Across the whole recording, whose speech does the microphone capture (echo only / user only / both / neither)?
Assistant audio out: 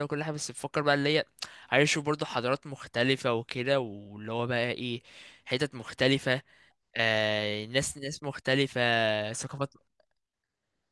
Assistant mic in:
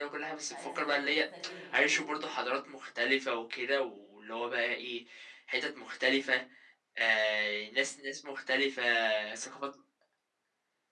both